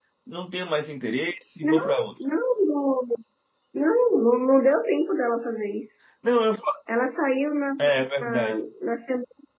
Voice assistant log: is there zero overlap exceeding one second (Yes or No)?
Yes